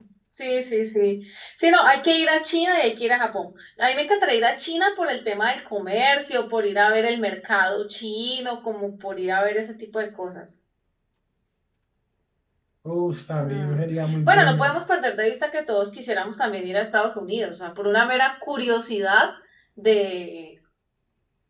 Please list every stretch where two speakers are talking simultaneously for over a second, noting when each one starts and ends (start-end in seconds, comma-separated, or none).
13.4-14.8